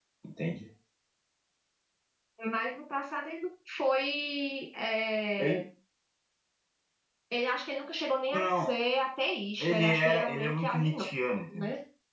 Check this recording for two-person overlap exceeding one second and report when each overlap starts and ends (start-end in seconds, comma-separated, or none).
9.6-11.0